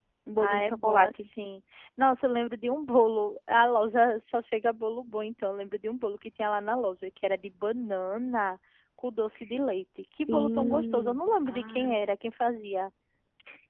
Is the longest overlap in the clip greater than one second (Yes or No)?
Yes